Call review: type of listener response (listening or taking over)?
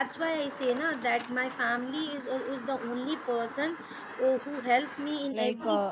taking over